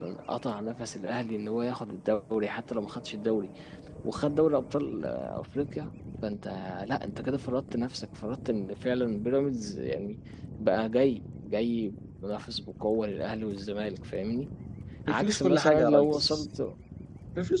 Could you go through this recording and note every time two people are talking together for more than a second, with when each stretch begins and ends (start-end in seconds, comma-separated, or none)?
15.1-16.5